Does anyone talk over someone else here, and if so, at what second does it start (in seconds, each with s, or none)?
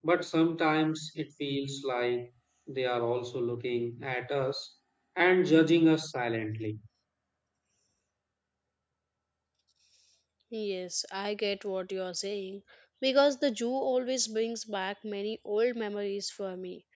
none